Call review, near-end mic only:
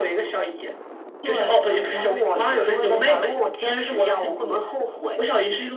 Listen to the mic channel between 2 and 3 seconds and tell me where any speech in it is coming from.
echo only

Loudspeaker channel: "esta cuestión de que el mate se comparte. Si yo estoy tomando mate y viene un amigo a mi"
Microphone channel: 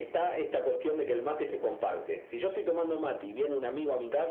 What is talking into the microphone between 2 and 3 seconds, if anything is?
echo only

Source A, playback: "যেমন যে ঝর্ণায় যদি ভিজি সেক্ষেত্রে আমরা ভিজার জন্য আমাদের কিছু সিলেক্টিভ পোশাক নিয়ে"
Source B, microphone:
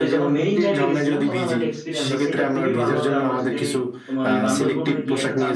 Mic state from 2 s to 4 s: both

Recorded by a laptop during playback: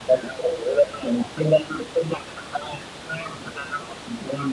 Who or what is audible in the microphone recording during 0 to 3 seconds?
echo only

